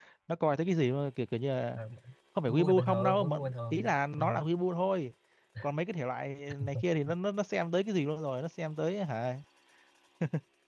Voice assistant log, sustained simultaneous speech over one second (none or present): present